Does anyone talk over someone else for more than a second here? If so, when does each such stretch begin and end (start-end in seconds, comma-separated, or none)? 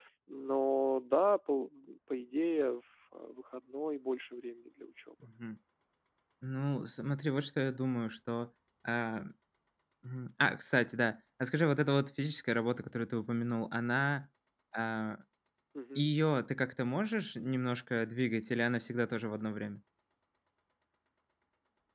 none